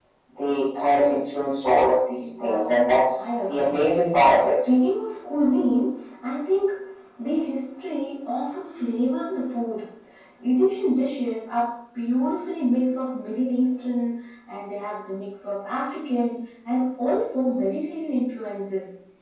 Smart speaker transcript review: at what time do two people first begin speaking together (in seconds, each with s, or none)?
2.4 s